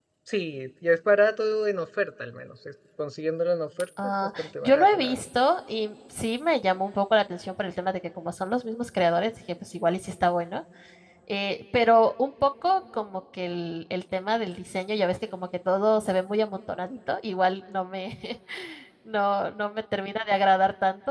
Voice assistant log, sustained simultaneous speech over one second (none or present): present